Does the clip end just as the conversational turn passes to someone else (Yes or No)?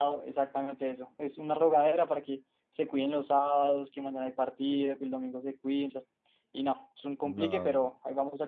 No